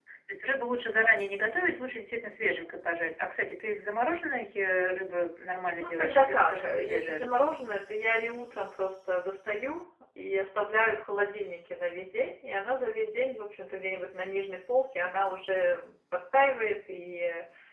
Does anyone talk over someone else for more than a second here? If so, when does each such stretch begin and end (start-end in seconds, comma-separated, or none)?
5.8-7.4